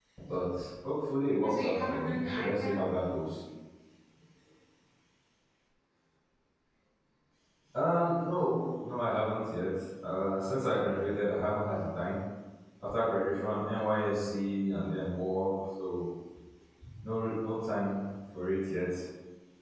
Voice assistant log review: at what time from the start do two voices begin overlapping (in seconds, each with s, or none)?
1.3 s